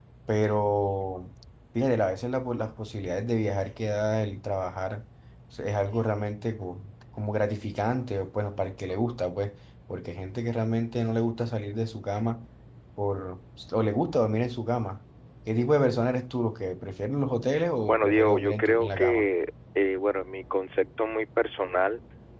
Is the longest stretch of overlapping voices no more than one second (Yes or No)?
No